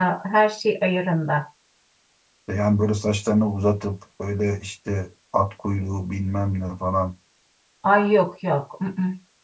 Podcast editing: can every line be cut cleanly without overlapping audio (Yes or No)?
Yes